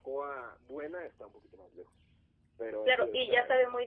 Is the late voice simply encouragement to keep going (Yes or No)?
No